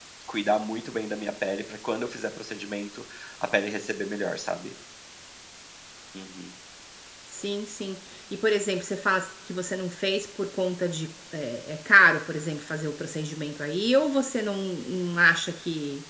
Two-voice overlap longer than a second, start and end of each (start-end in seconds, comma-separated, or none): none